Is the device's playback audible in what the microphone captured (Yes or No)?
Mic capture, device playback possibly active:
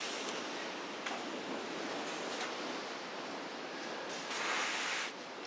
No